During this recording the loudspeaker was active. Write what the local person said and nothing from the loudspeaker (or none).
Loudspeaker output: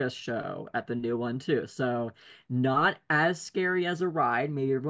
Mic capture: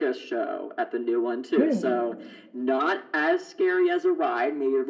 Mm,